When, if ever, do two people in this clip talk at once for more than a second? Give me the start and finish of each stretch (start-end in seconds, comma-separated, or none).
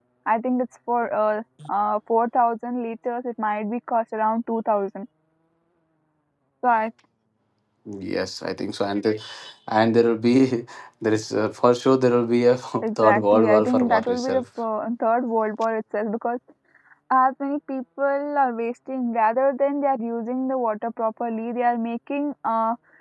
12.8-14.4